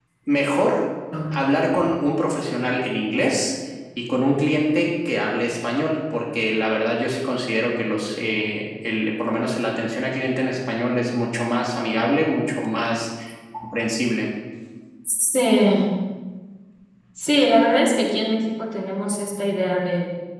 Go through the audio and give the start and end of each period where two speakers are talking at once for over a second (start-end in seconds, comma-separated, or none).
none